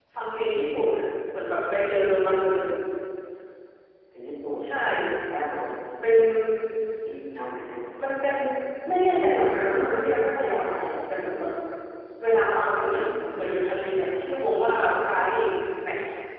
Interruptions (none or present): none